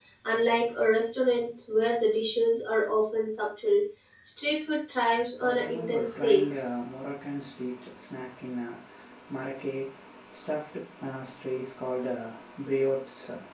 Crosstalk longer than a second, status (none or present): present